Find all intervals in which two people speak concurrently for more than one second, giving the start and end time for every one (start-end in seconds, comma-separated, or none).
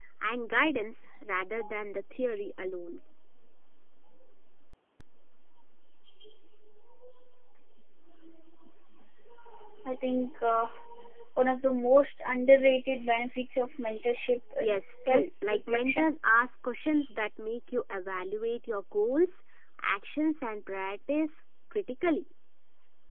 14.6-16.1